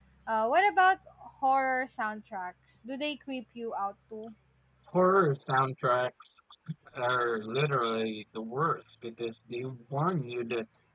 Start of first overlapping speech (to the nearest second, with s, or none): none